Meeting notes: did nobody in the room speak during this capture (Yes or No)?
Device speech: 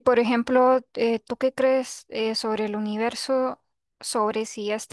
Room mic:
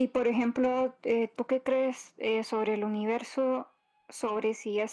Yes